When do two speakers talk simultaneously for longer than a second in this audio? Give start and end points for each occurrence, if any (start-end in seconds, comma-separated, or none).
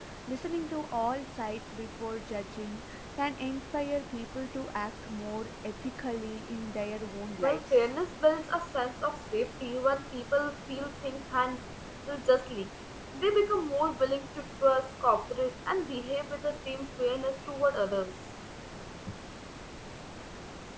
none